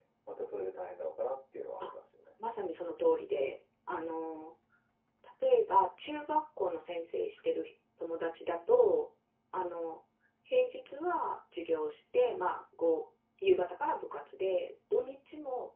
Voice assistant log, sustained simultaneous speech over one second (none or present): none